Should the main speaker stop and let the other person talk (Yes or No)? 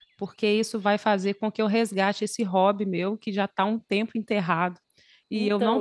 No